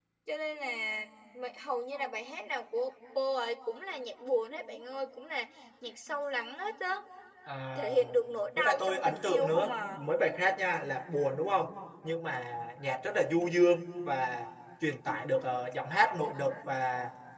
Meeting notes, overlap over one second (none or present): present